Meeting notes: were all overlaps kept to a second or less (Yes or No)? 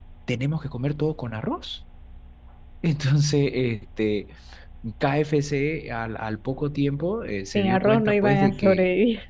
No